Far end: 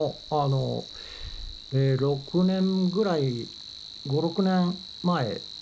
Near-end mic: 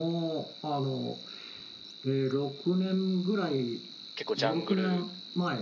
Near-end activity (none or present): present